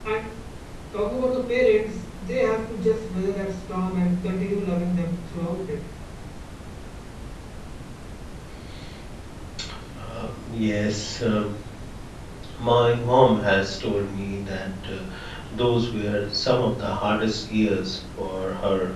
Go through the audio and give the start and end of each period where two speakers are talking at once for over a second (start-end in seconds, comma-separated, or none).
none